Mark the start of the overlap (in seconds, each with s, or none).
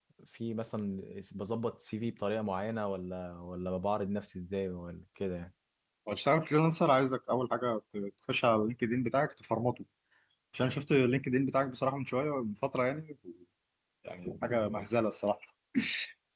none